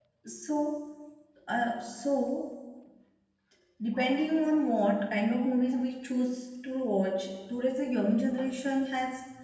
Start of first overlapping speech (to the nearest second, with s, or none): none